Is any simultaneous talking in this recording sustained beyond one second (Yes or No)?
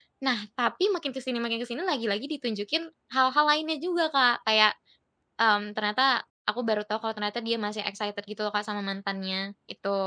No